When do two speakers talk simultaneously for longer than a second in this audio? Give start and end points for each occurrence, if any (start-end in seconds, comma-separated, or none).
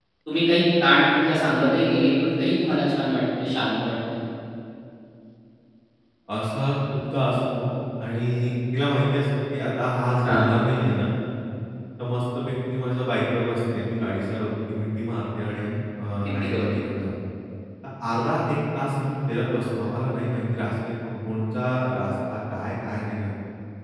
none